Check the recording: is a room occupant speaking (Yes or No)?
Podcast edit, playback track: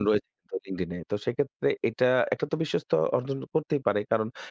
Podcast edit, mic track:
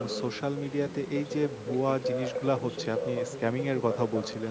Yes